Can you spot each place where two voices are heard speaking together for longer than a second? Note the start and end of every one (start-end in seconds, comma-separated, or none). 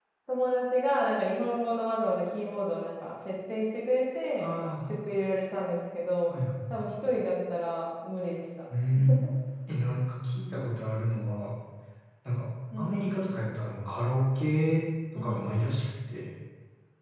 none